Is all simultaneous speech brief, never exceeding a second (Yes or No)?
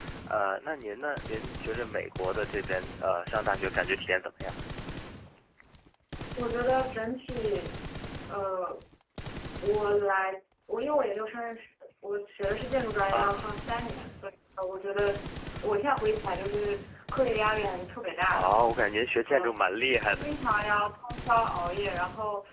Yes